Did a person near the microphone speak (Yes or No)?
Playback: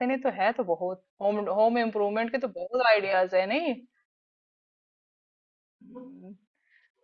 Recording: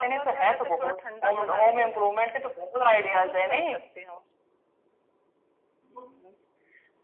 Yes